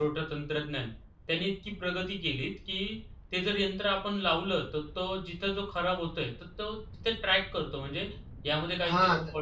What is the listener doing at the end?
taking over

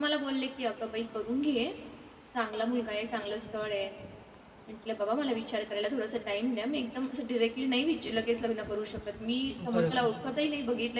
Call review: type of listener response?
listening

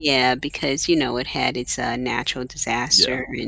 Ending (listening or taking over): taking over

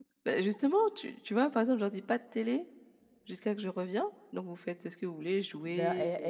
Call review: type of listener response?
taking over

